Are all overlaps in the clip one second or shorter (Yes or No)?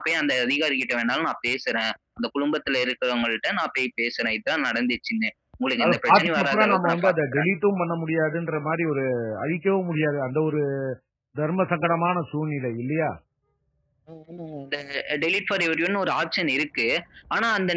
No